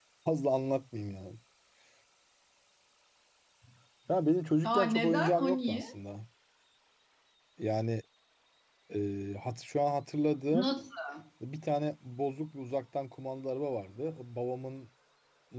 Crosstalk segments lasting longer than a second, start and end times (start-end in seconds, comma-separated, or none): 4.6-5.8